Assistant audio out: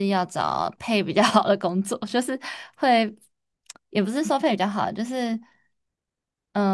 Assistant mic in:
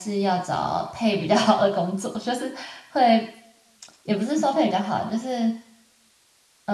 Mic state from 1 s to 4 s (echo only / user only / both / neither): echo only